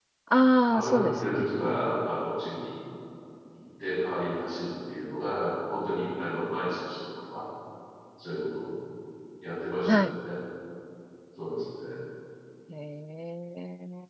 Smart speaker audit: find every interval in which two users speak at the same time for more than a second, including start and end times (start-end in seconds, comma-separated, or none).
0.7-1.9